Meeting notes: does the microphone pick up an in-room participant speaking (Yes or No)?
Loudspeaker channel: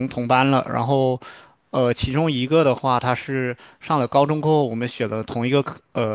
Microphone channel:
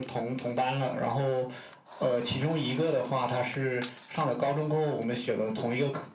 No